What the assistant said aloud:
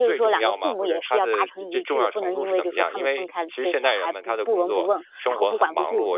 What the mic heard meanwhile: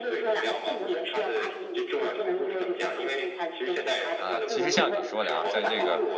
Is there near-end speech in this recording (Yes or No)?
Yes